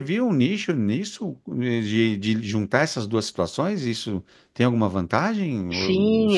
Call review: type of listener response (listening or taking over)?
taking over